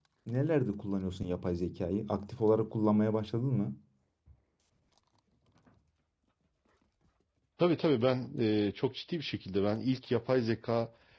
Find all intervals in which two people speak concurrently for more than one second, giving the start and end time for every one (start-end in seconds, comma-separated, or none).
none